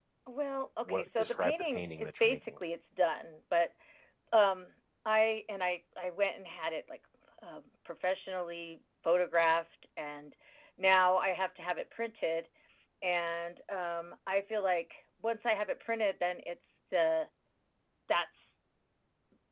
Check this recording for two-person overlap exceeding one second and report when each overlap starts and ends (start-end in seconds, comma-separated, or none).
0.9-2.6